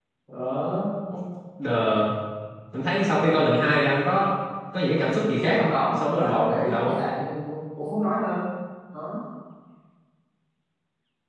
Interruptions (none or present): present